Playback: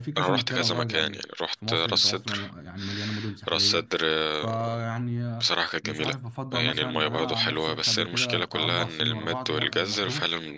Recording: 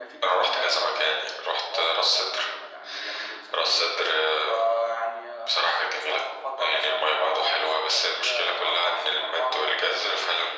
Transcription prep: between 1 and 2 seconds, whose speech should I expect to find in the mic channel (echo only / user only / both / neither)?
echo only